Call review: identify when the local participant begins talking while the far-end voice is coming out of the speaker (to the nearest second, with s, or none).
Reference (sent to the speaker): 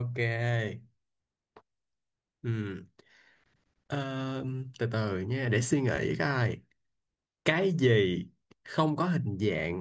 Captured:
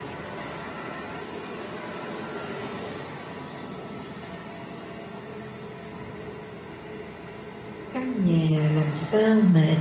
8 s